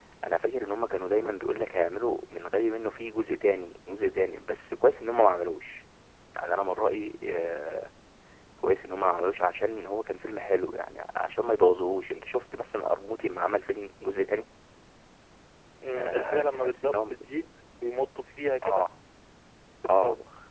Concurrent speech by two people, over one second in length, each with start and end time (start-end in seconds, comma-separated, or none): 16.0-17.3